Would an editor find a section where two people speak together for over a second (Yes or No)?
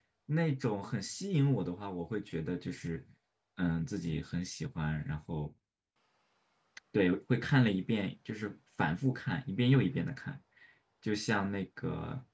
No